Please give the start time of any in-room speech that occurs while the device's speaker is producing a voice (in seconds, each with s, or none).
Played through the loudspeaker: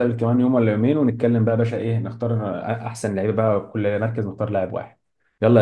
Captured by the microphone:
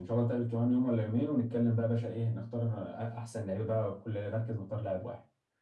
none